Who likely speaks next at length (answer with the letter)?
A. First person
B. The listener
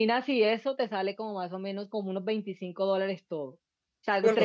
A